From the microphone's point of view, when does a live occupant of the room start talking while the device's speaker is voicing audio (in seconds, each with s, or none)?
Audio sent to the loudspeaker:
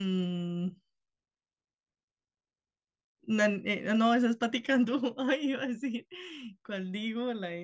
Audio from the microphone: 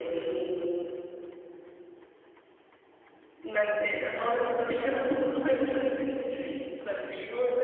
none